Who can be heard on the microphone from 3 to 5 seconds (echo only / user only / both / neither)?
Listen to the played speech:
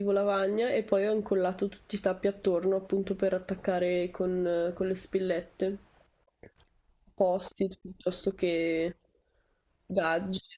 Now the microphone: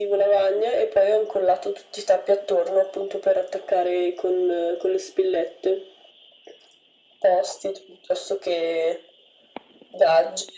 echo only